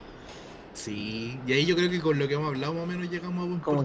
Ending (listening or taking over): taking over